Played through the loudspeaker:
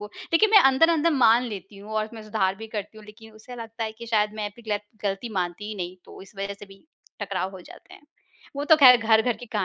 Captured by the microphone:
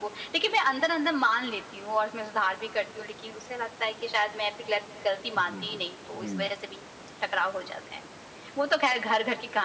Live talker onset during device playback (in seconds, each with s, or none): 5.3 s